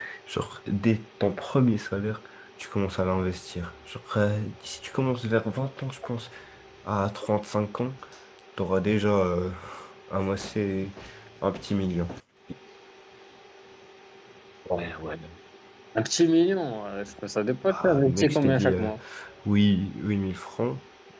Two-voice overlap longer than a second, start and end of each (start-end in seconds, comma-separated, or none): 17.6-18.9